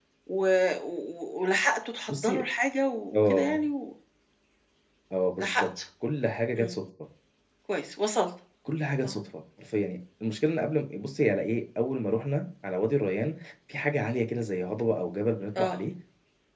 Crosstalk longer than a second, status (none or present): none